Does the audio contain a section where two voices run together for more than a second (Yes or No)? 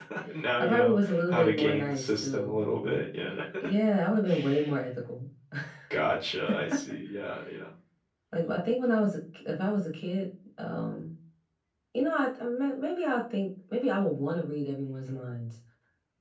Yes